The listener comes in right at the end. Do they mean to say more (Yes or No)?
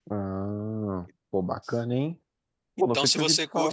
Yes